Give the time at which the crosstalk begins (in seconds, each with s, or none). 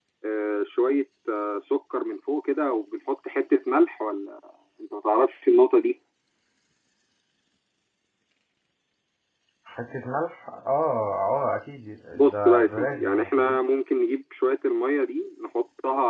12.1 s